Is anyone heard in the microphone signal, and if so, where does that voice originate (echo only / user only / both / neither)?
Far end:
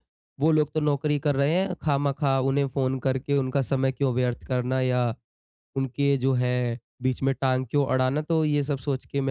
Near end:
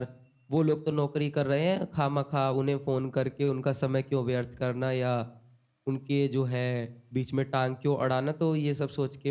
echo only